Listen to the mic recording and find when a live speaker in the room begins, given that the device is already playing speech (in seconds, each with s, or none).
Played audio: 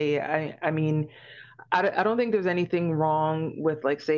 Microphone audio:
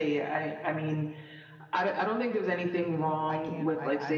3.3 s